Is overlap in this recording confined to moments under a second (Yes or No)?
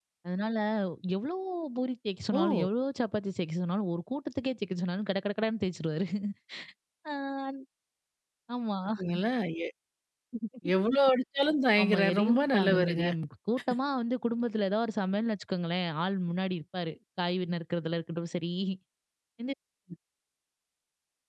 No